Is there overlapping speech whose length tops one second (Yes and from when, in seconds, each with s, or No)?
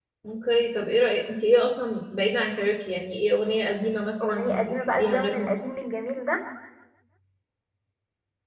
Yes, from 4.2 s